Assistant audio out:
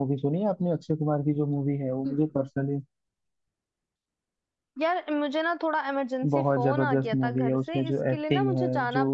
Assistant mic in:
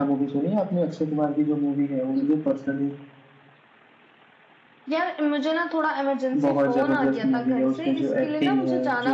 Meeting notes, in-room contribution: none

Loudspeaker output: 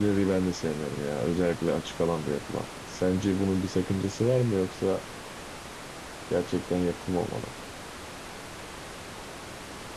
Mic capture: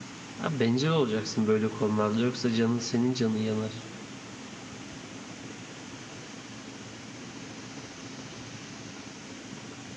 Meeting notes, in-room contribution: present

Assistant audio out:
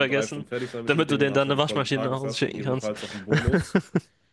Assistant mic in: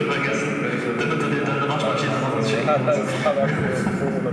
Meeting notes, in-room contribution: present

